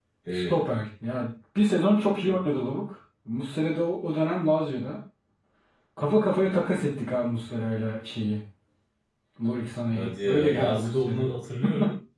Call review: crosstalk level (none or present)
present